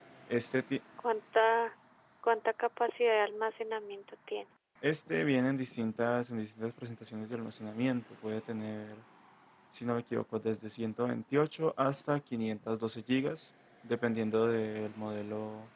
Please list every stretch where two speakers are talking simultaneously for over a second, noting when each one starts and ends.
none

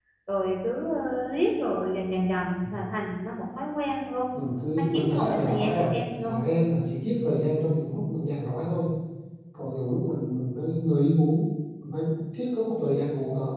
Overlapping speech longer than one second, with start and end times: 4.8-6.3

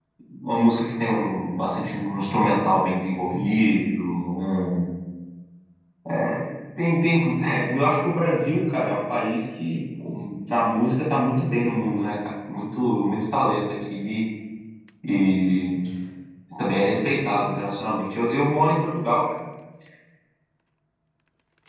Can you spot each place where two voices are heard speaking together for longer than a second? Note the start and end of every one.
none

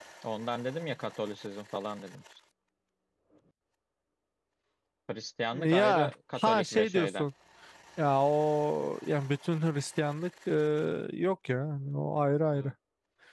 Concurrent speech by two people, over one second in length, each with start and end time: 5.5-7.2

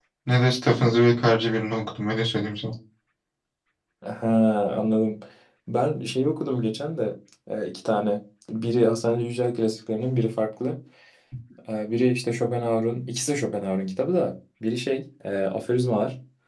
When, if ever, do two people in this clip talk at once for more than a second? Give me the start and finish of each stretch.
none

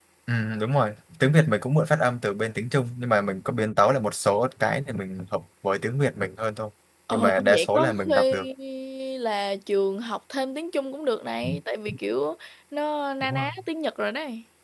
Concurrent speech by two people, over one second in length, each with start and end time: 7.1-8.4

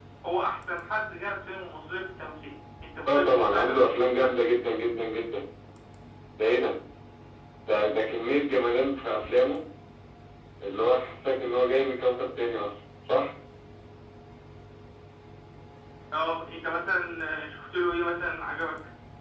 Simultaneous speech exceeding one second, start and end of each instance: 3.1-4.3

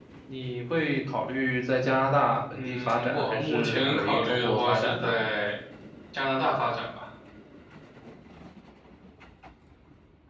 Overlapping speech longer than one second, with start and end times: 2.5-5.1

